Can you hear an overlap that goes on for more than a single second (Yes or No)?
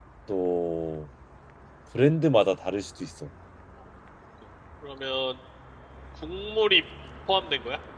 No